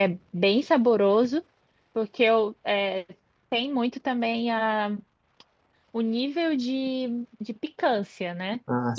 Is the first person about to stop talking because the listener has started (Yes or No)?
No